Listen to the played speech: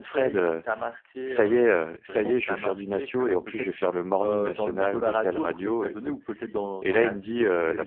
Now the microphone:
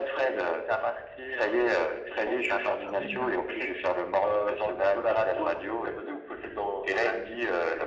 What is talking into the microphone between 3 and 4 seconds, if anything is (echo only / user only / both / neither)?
both